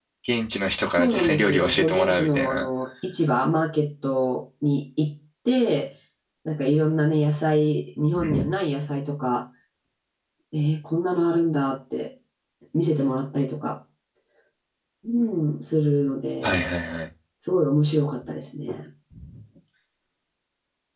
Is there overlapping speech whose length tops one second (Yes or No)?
Yes